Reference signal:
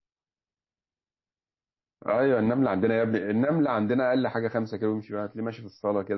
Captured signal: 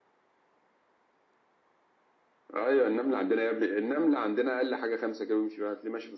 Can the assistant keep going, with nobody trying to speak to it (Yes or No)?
Yes